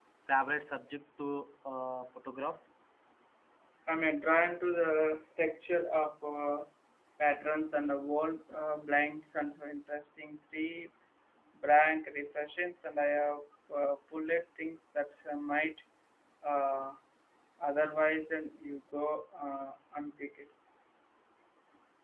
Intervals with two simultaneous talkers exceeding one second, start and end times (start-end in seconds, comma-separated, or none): none